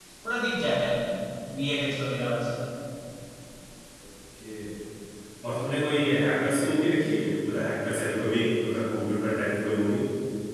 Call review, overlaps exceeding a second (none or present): none